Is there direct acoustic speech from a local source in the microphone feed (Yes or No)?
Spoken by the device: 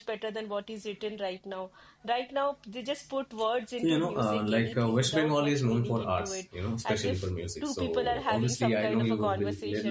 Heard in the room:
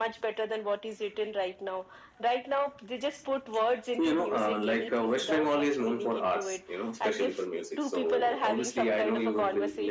No